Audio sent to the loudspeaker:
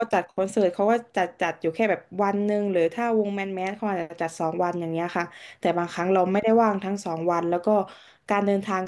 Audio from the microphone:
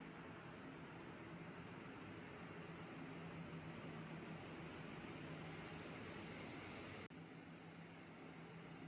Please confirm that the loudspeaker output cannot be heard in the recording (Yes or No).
Yes